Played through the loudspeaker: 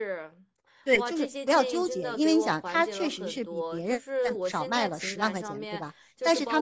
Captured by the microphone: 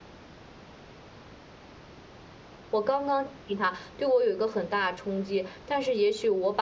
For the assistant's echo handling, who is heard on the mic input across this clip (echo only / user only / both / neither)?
user only